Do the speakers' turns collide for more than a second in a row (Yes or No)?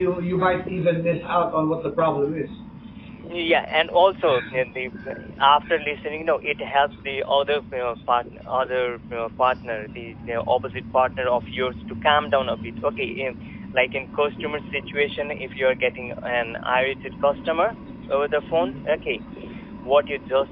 No